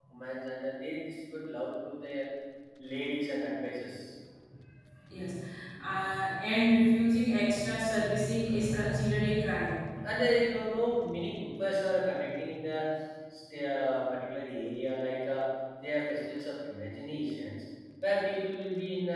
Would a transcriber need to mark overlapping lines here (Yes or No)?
No